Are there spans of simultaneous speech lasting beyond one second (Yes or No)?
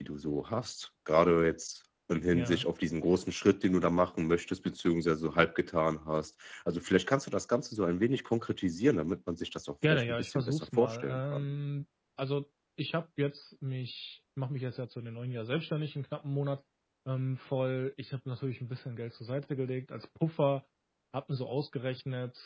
Yes